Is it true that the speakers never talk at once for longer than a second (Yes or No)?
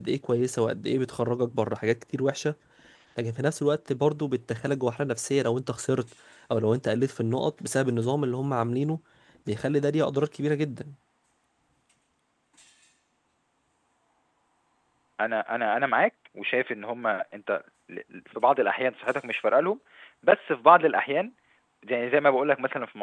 Yes